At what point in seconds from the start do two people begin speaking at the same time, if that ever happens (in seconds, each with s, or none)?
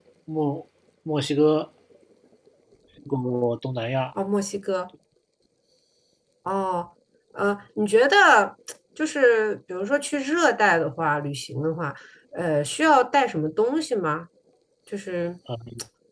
none